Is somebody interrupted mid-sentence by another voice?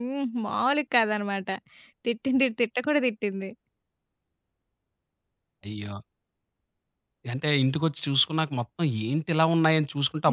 No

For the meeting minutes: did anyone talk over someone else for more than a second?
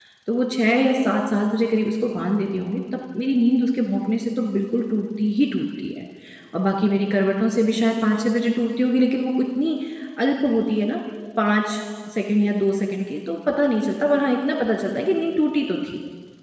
No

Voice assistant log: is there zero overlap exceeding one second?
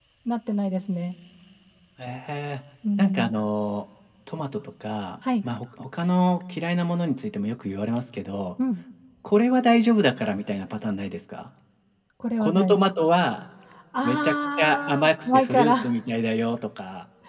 No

